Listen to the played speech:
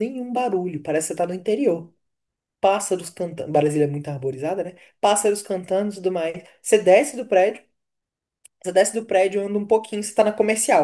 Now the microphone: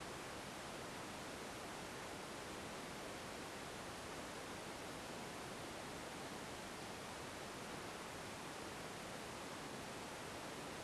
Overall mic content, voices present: neither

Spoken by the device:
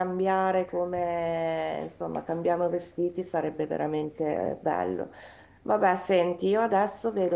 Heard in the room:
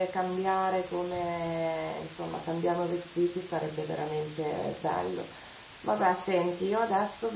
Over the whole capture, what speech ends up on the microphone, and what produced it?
echo only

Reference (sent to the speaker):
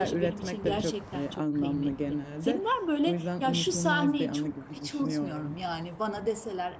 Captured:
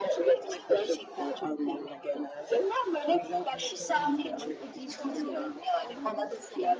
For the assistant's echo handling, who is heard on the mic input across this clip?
both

